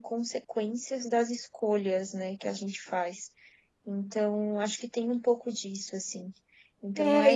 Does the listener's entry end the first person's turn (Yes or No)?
Yes